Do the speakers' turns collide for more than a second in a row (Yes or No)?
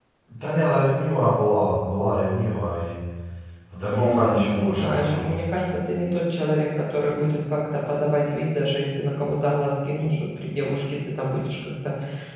Yes